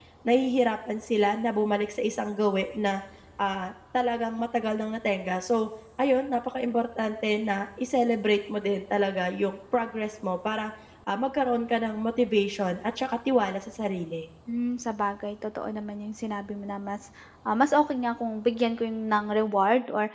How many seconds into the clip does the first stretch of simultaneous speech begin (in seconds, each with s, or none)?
none